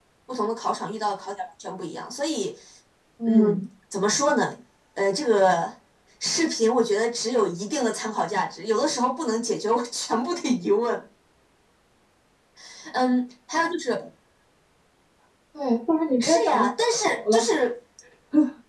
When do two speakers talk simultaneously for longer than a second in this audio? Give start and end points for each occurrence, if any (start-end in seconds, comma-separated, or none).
16.2-17.5